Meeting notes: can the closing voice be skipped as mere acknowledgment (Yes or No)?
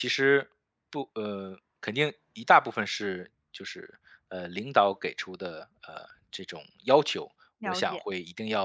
Yes